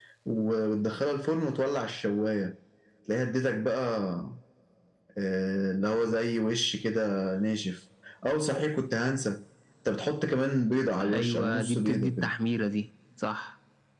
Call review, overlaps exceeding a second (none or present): present